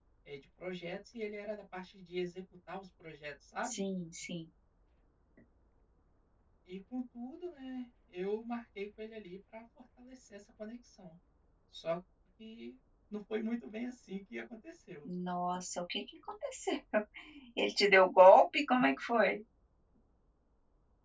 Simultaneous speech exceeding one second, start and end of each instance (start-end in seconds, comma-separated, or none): none